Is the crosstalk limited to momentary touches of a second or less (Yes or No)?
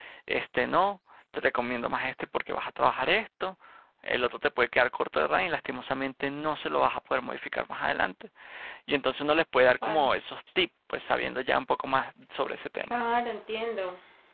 Yes